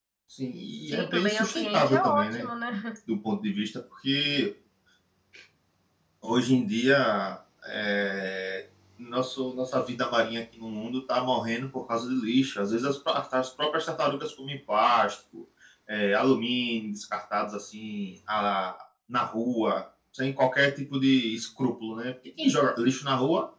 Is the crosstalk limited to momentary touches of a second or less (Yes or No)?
No